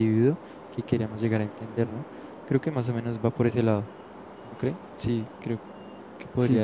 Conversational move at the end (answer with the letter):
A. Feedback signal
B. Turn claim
B